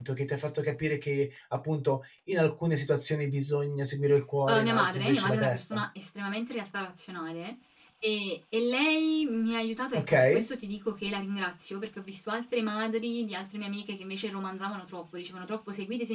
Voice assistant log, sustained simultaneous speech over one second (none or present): present